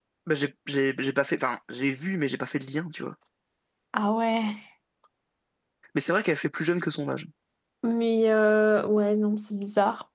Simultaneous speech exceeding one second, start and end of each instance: none

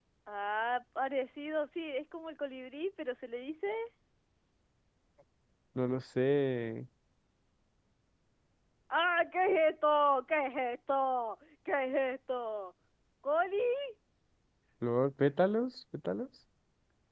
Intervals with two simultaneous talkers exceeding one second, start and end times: none

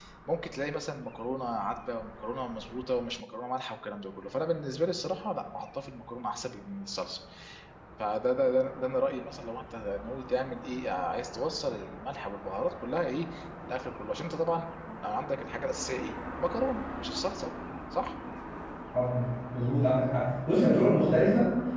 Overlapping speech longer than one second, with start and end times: none

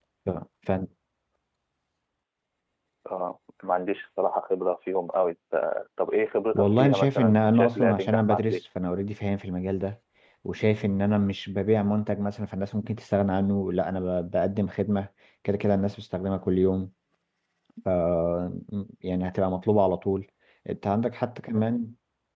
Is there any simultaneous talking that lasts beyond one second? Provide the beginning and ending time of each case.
6.5-8.6

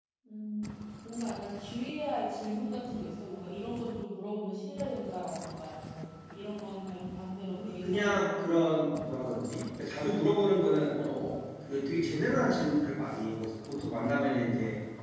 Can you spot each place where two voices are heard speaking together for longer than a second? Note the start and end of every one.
7.5-9.0

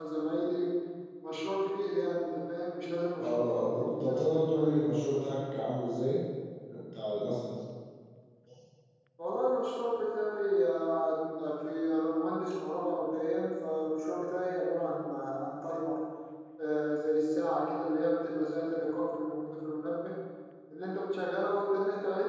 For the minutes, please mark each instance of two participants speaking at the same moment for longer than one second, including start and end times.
3.2-4.9

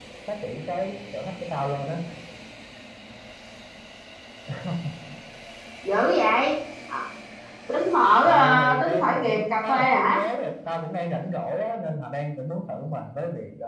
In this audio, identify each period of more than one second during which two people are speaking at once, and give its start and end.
8.2-10.2

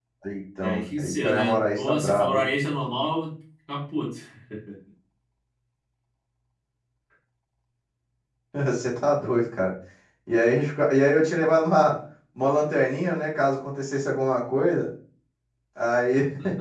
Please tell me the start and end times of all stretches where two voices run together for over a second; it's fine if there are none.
0.6-2.5

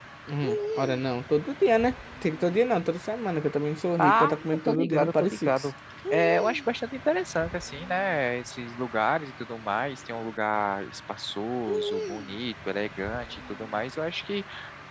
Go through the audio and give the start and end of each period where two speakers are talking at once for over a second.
4.0-5.7

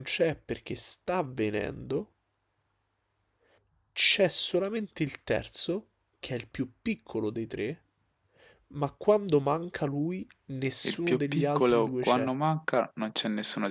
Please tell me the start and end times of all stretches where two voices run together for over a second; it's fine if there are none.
10.8-12.3

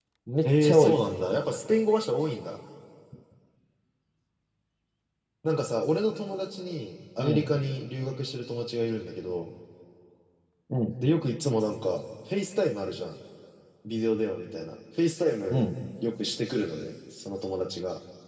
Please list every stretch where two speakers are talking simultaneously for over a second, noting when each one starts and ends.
none

